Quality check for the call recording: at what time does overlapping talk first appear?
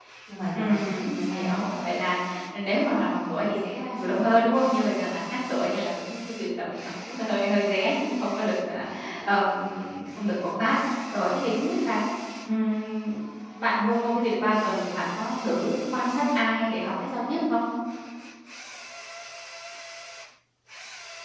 0.5 s

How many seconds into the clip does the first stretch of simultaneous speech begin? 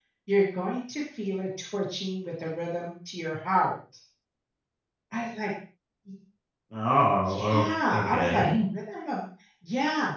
7.2 s

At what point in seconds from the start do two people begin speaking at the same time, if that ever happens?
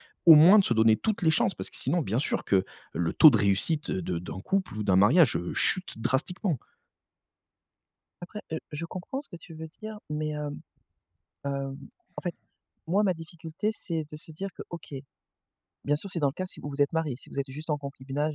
none

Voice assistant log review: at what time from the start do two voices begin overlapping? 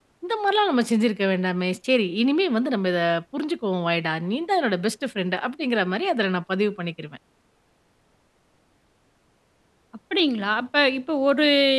none

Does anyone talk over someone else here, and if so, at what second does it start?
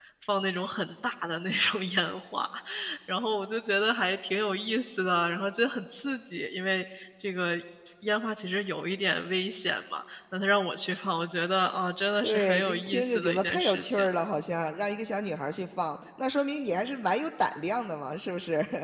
12.2 s

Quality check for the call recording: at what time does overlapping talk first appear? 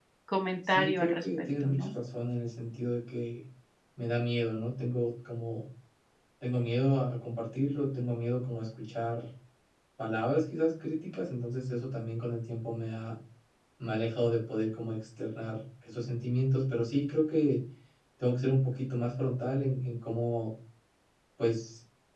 0.7 s

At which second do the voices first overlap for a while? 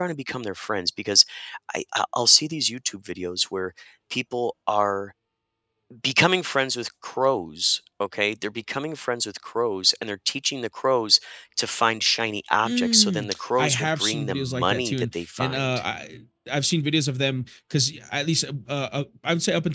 12.7 s

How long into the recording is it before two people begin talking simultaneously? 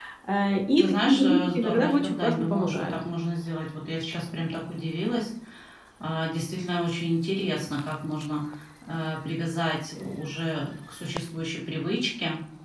0.8 s

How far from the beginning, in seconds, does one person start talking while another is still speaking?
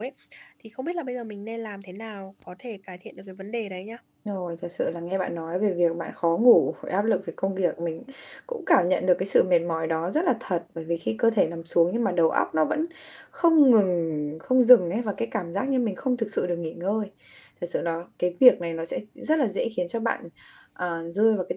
none

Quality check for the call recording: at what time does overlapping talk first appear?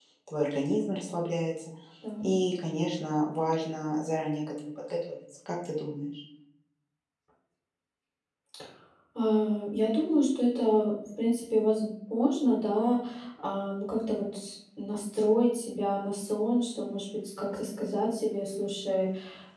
none

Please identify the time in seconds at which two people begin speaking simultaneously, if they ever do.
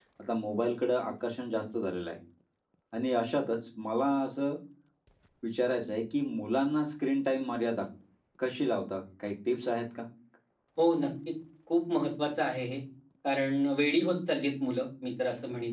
none

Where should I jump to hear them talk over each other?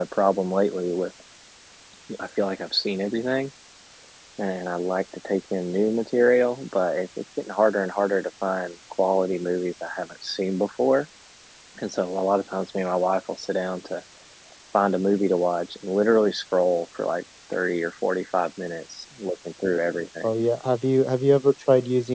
none

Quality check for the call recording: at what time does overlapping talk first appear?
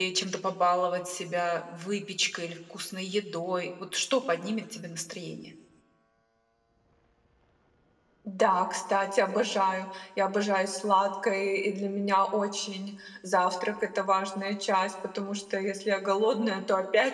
none

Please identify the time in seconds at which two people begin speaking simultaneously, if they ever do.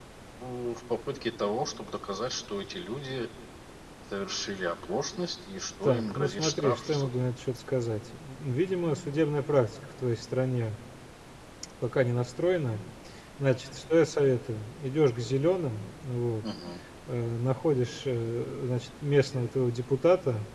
5.8 s

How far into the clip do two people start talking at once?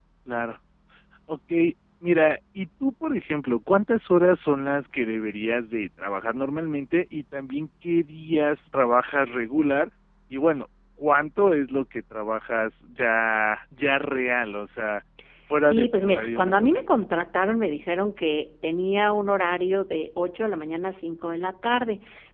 15.6 s

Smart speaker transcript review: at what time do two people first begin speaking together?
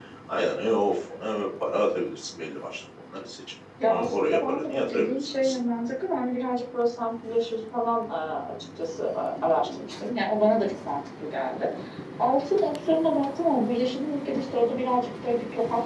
3.8 s

